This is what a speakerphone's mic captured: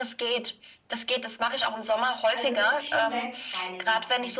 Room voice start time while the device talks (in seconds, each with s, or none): 2.3 s